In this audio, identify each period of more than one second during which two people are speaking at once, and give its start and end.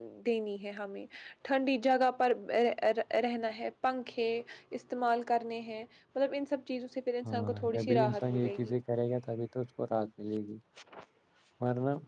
7.2-8.7

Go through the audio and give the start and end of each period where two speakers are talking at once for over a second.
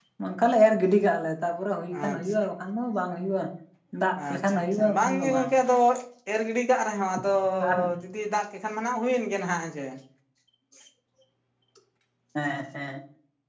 4.3-5.5

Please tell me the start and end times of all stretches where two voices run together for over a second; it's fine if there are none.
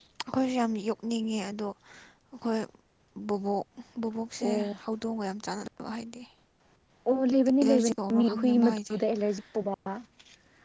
7.6-8.9

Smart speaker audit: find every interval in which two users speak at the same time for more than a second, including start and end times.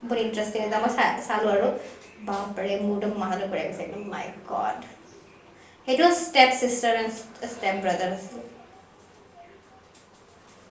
none

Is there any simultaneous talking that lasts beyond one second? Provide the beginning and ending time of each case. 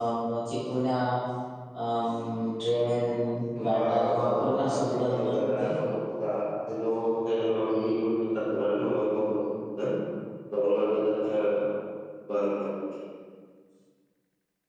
3.7-5.7

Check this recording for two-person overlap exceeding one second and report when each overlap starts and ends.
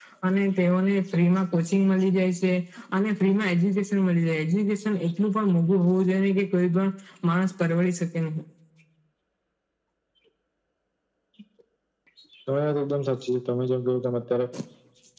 none

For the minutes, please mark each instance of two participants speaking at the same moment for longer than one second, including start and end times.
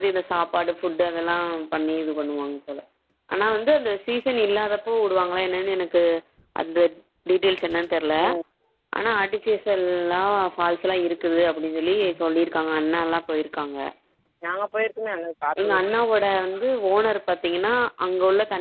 none

